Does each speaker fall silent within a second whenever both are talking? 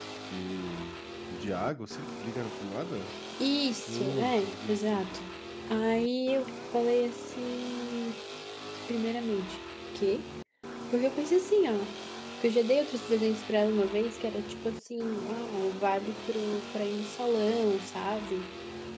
No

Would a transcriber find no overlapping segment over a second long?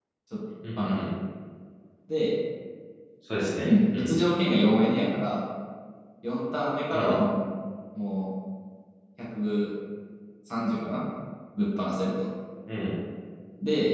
Yes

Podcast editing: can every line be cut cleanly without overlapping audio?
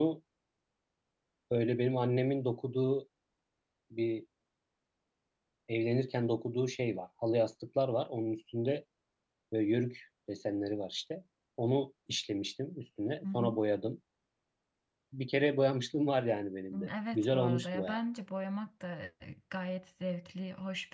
No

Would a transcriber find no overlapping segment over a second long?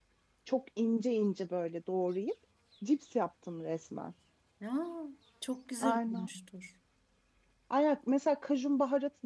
Yes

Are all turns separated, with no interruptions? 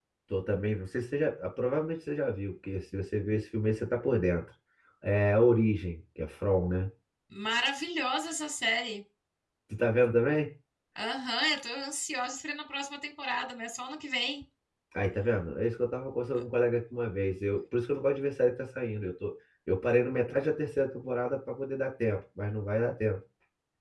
Yes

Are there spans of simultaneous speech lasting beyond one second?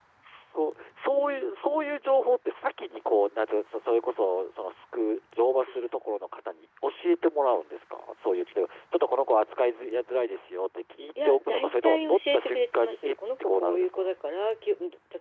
Yes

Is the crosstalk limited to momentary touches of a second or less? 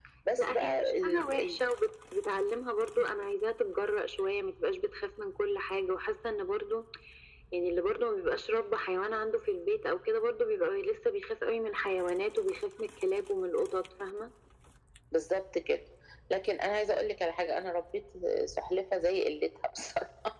No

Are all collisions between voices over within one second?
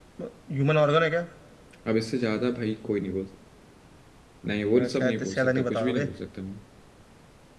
No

